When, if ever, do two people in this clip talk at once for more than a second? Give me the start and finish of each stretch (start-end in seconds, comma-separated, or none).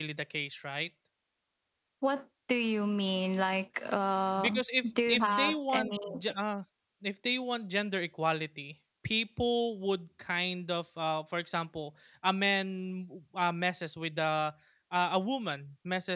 4.4-5.9